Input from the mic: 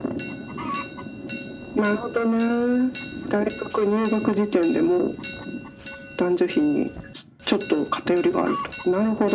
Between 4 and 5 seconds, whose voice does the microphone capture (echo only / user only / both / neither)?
echo only